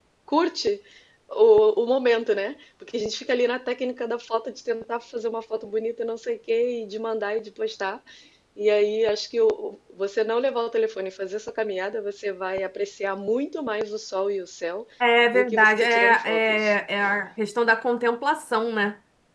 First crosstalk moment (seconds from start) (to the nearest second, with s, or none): 15 s